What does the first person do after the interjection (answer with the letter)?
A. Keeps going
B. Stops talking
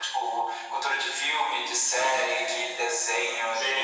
B